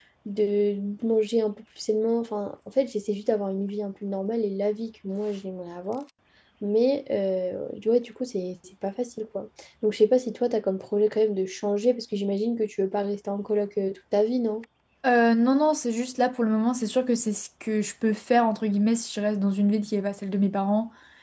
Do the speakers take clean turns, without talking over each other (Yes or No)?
Yes